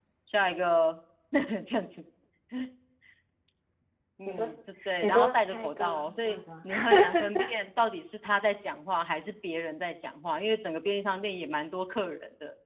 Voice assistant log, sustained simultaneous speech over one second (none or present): present